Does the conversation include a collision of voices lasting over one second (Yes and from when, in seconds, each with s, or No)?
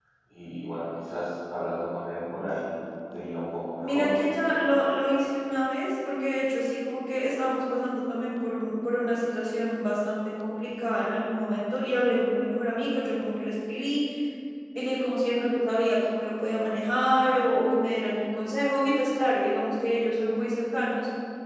No